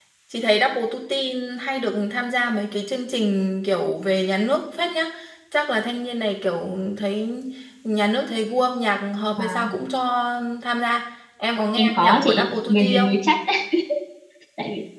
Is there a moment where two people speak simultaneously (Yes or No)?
Yes